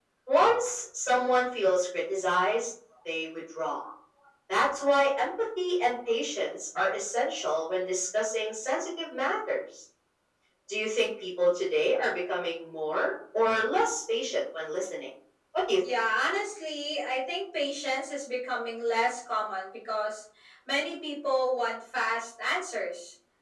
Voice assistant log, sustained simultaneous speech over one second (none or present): none